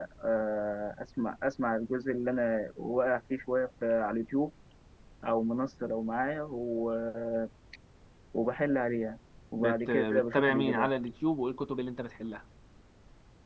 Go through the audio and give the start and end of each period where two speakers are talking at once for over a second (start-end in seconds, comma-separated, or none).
9.5-10.9